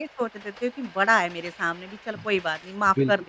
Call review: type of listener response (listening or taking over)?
taking over